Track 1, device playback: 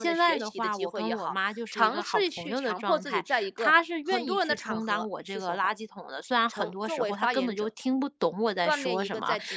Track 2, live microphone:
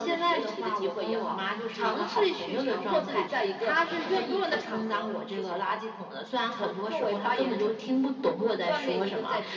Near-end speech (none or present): none